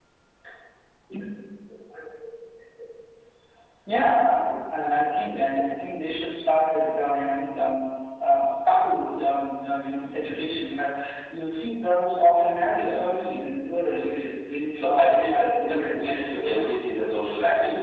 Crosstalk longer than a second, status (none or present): present